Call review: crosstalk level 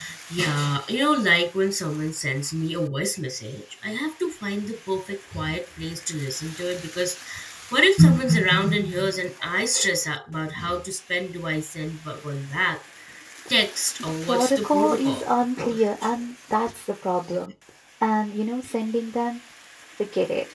present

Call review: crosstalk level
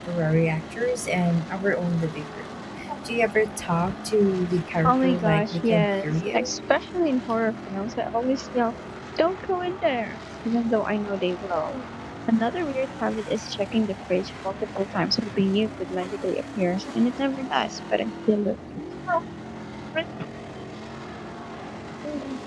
present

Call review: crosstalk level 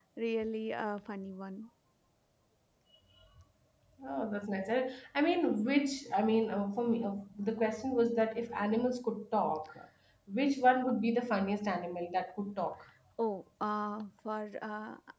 none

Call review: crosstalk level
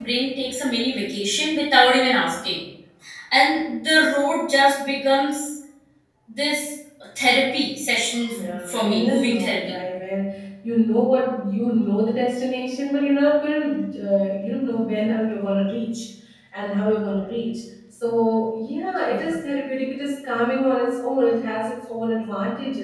present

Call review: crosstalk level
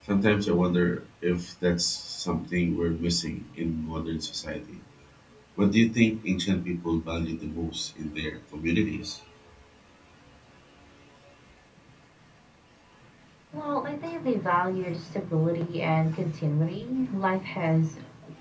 none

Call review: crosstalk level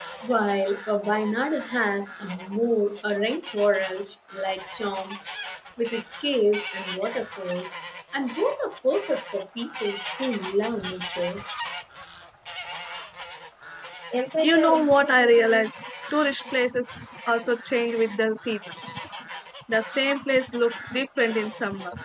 none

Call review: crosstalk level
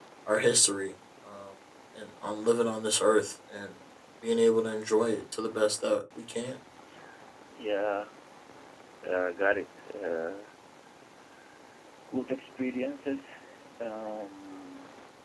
none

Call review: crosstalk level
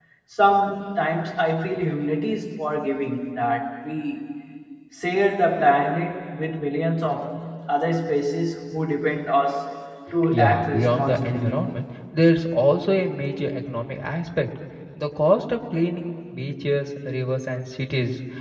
present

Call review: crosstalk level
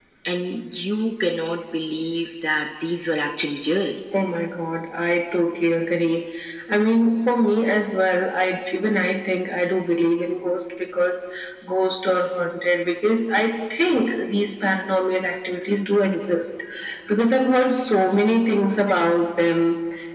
none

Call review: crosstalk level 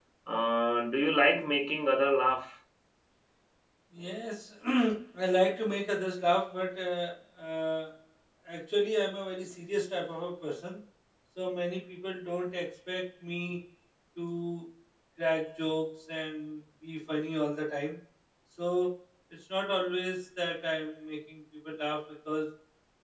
none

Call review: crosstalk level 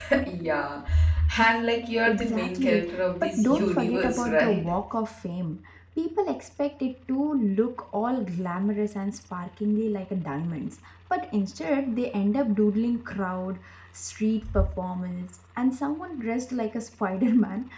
present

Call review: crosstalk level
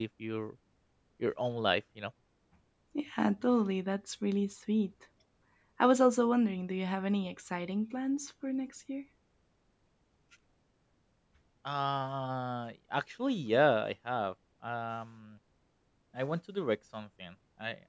none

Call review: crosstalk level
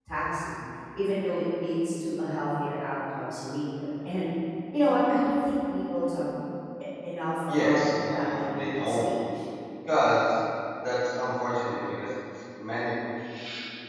present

